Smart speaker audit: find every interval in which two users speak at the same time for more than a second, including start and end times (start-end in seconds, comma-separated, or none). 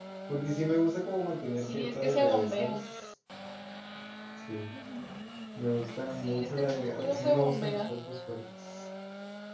1.5-2.8, 6.1-7.9